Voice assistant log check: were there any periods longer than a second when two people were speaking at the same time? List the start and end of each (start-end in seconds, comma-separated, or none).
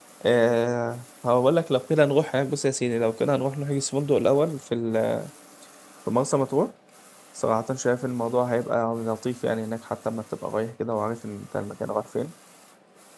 none